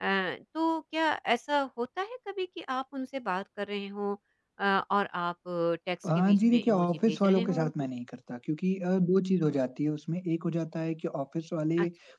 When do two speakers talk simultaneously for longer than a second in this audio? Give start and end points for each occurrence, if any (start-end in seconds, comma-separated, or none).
6.2-7.7